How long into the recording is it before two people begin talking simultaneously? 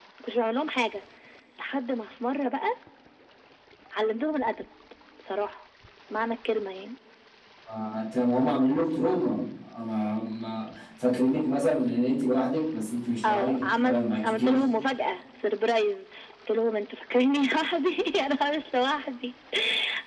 13 s

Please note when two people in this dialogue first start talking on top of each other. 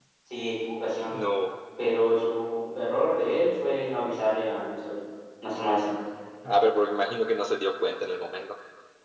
none

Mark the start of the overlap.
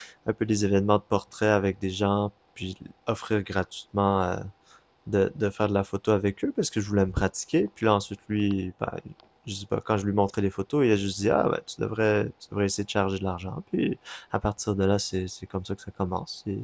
none

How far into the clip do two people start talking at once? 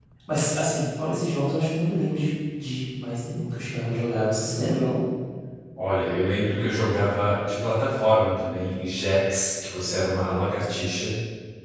none

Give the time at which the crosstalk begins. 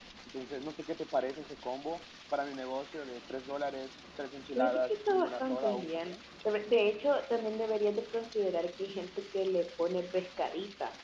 5 s

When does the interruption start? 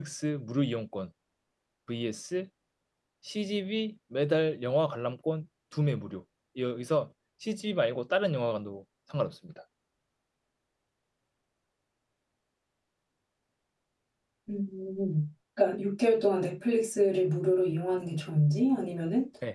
none

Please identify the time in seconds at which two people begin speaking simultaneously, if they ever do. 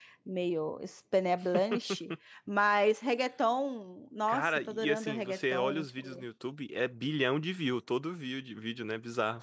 4 s

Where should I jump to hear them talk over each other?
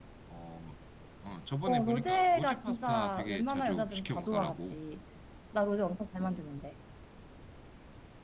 2 s

